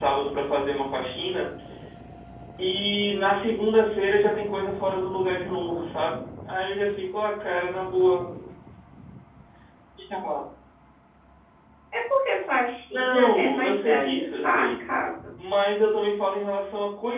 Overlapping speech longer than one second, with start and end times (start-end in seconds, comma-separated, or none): 12.9-14.9